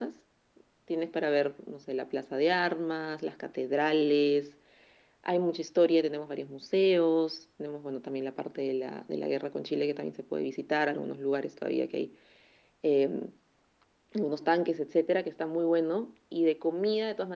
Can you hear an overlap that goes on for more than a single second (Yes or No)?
No